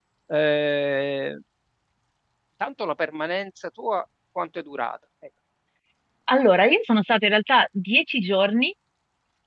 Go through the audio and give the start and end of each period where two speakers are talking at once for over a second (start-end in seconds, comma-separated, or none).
none